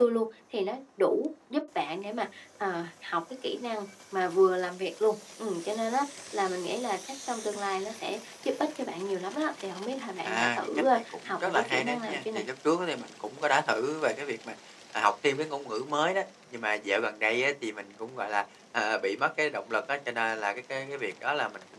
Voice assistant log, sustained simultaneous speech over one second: present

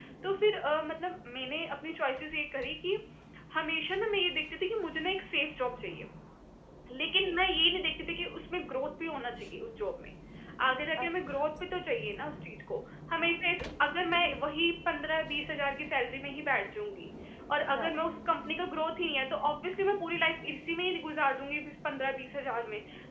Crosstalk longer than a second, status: none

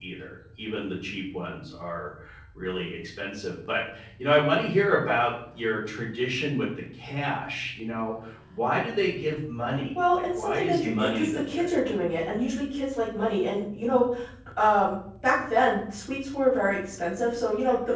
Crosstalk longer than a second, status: present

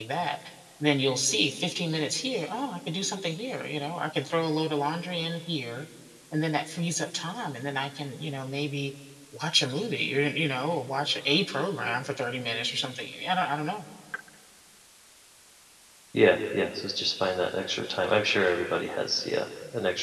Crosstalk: none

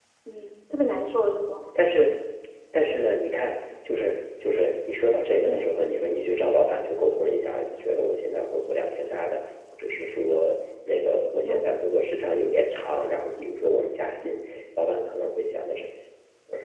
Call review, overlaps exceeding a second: none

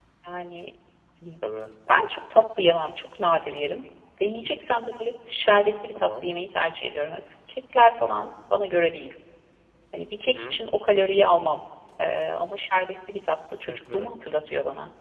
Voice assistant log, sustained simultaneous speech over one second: none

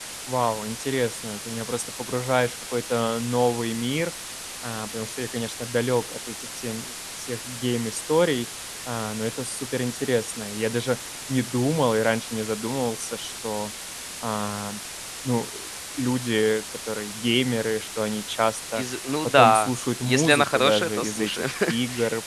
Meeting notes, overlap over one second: present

